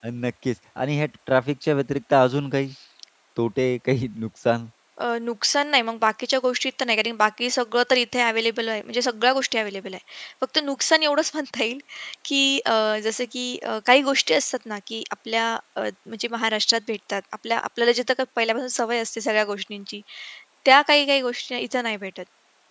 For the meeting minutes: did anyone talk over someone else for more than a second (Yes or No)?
No